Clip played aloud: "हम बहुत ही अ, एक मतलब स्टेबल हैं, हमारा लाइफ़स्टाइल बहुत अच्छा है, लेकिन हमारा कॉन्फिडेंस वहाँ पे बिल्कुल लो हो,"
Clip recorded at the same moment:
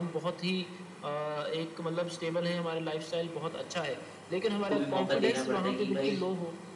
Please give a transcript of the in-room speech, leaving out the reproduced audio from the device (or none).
को भी मौका देना पड़ता है कि भाई